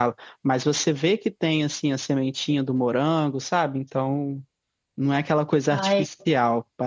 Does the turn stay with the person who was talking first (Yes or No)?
Yes